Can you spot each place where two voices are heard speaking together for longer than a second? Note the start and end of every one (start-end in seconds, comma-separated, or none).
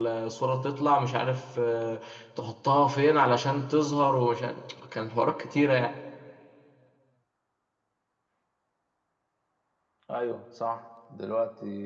none